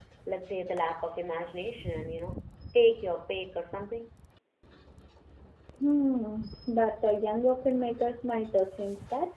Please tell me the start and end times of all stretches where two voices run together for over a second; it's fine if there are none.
none

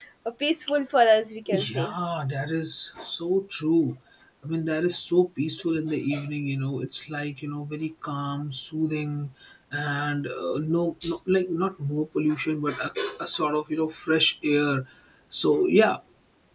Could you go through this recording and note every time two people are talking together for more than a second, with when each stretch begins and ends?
none

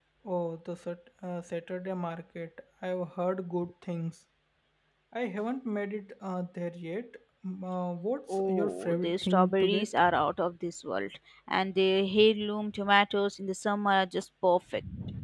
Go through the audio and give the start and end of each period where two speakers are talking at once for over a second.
8.3-10.0

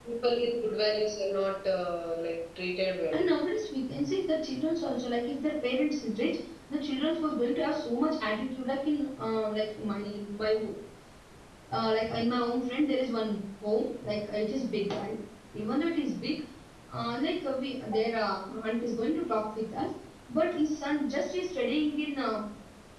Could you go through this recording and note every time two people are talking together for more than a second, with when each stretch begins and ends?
none

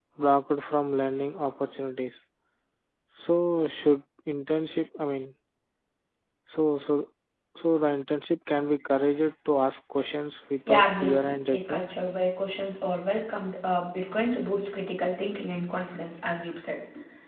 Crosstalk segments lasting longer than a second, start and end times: 10.7-11.9

